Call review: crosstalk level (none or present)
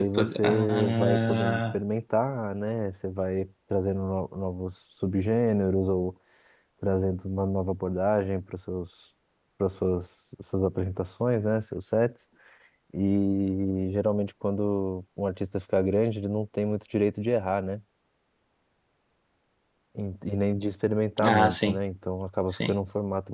present